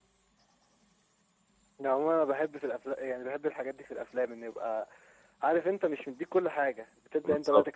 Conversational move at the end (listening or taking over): listening